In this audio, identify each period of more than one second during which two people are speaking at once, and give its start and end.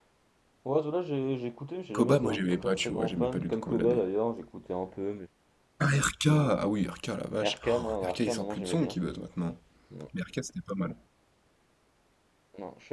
1.9-4.0, 7.5-9.0

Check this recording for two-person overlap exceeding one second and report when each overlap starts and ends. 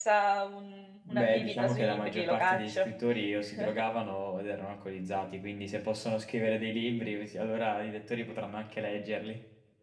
1.1-2.9

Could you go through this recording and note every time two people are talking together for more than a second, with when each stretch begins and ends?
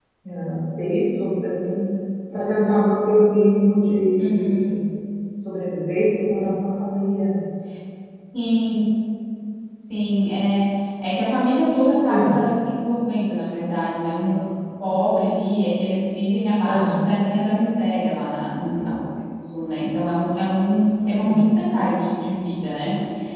none

